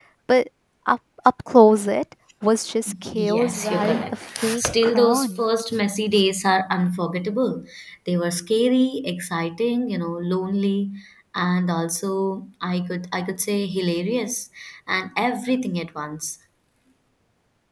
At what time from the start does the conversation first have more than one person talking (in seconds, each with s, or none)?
3.1 s